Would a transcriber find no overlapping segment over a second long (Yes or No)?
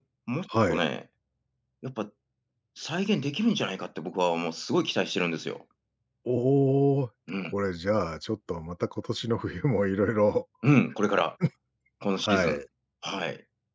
Yes